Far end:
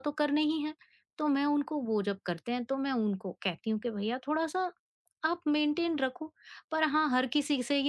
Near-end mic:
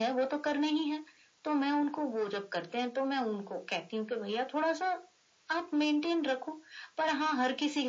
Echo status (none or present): present